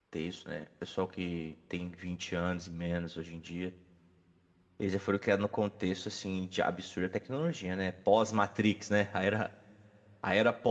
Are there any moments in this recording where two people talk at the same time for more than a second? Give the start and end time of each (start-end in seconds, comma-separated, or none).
none